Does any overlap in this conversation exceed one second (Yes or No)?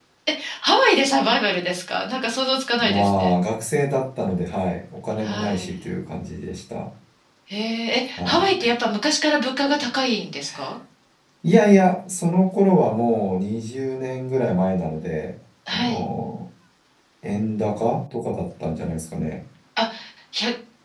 No